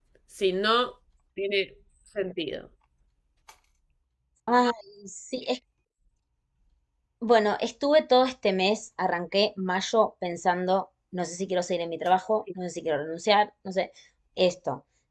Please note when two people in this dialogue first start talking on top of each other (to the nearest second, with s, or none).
none